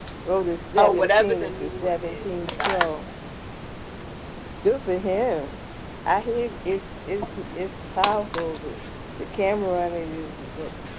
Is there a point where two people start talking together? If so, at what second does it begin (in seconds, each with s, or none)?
0.8 s